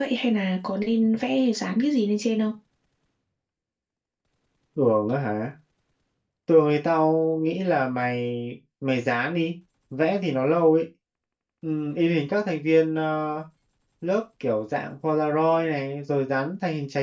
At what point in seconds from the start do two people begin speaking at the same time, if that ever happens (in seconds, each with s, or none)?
none